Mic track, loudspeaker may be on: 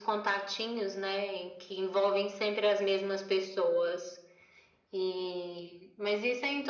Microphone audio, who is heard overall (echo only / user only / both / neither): echo only